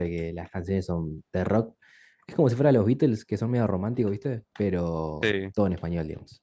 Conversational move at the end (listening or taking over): listening